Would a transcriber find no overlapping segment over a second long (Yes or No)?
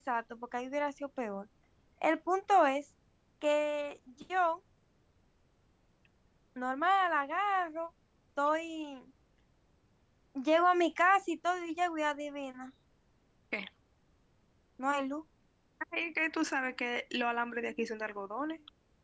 Yes